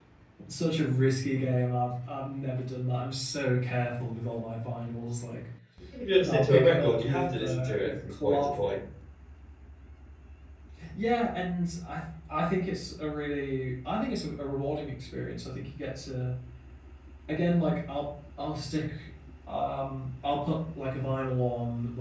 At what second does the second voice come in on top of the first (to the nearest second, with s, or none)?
6 s